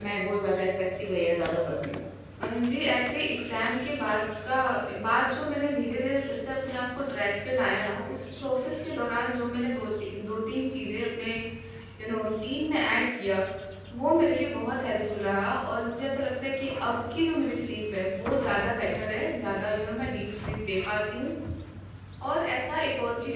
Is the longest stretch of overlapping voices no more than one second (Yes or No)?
Yes